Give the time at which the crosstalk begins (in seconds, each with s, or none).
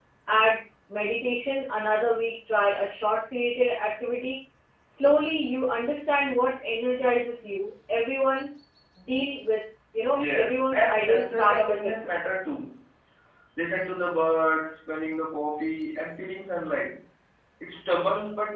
10.1 s